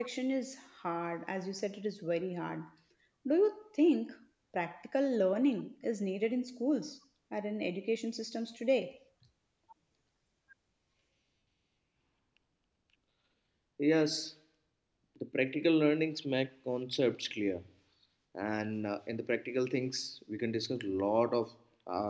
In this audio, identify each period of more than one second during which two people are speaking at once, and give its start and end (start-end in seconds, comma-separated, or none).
none